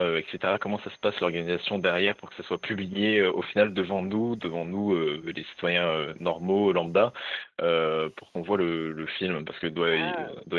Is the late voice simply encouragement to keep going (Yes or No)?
No